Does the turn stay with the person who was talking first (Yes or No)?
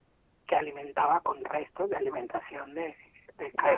No